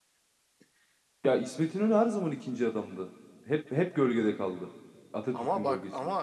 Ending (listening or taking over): taking over